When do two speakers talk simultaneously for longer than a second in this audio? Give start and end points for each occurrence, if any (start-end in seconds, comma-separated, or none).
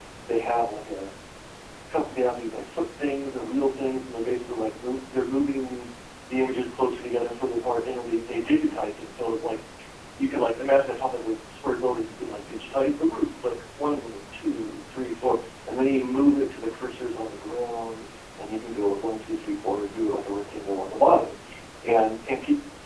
none